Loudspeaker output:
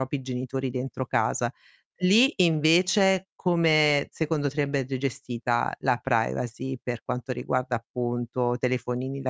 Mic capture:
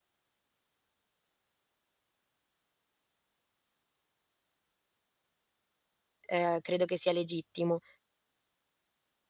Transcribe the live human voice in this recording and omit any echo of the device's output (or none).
uhm, credo che sia legittimo.